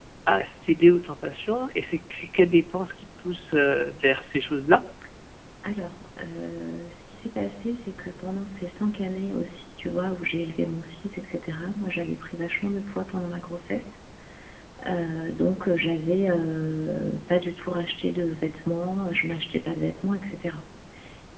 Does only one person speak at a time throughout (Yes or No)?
Yes